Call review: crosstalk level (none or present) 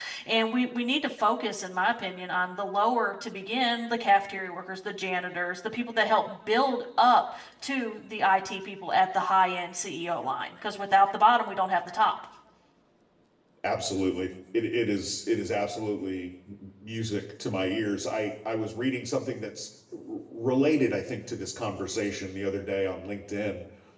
none